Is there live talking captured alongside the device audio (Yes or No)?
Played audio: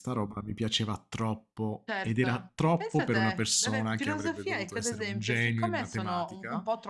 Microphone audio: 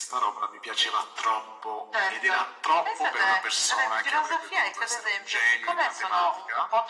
No